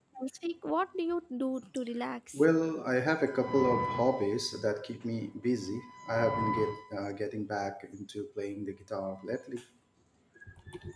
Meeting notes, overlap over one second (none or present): none